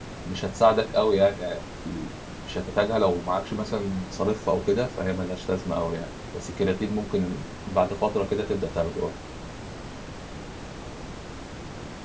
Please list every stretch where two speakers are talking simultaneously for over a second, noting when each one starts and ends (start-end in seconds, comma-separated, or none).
none